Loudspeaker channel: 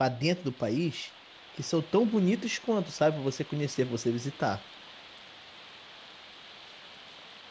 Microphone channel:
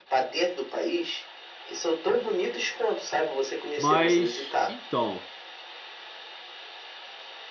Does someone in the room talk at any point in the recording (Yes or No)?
Yes